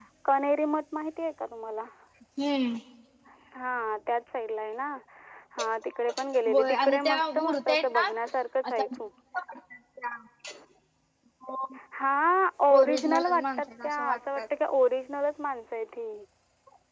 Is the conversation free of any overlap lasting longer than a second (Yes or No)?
No